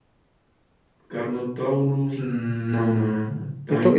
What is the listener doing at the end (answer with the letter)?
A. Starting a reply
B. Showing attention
A